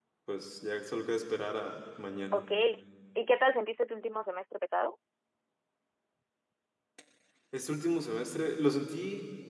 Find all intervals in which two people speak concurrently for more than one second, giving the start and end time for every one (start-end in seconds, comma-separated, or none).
none